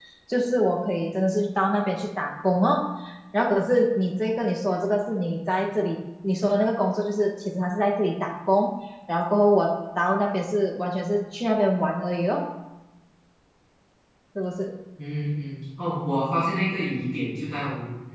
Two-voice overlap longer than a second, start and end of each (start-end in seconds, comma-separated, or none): none